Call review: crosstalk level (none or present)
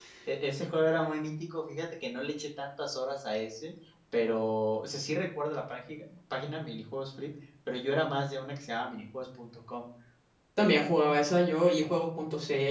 none